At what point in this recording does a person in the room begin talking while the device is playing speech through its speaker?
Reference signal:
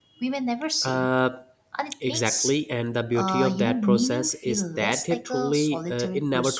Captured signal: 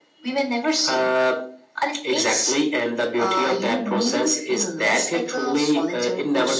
none

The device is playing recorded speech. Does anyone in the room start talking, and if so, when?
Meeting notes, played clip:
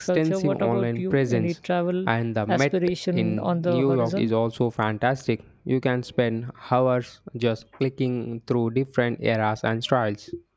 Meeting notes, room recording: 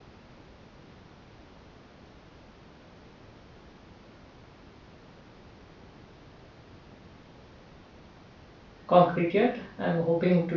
8.9 s

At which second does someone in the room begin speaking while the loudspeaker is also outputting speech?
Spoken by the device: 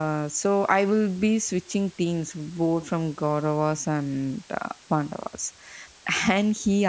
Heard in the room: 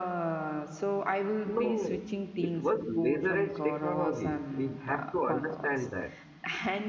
1.4 s

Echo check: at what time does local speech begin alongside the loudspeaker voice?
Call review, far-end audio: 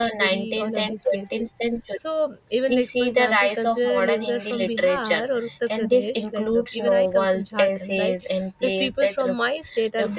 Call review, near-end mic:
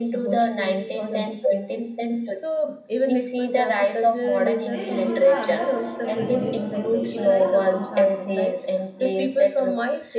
4.7 s

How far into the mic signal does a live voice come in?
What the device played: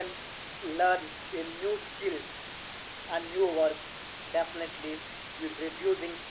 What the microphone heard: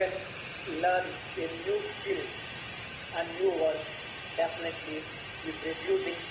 none

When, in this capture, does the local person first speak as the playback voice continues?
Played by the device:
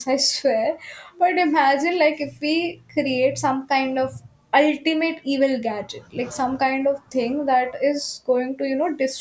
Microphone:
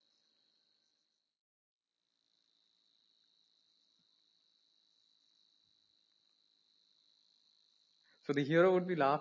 8.2 s

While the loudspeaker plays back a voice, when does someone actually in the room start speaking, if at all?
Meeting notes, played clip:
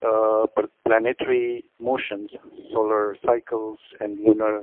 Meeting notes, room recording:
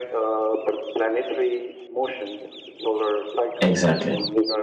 3.6 s

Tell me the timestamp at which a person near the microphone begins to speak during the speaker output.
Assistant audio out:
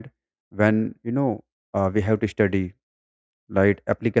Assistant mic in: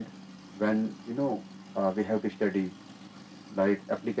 none

